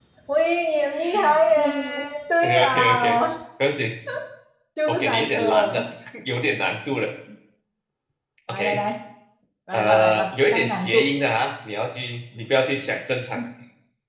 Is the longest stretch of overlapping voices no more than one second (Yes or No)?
No